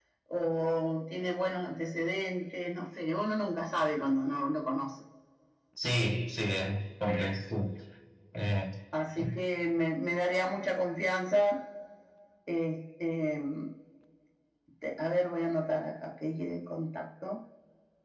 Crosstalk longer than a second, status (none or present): none